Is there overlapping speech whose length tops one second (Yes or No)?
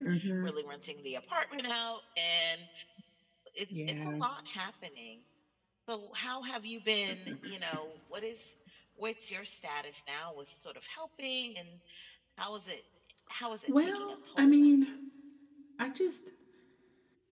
Yes